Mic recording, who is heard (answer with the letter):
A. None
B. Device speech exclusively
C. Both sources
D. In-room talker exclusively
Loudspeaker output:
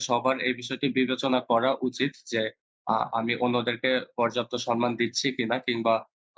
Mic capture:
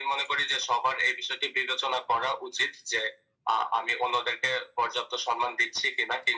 B